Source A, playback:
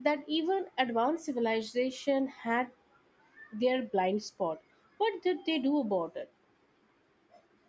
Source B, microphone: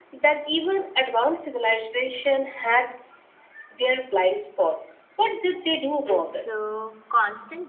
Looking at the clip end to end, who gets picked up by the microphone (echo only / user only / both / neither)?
both